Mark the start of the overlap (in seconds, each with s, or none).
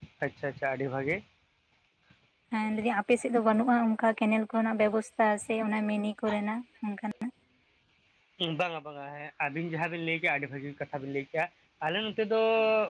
none